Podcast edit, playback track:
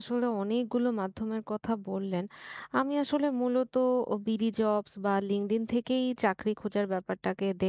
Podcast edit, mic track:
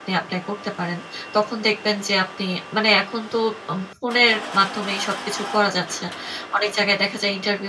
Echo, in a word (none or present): none